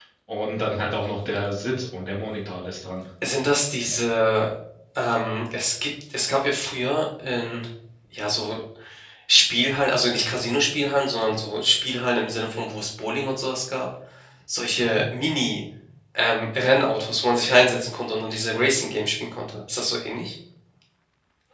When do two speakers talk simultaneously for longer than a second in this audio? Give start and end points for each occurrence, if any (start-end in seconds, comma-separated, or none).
none